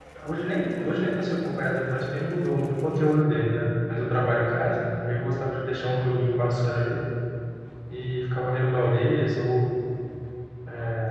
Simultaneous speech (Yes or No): No